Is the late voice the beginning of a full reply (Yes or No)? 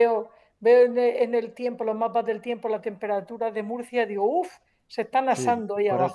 Yes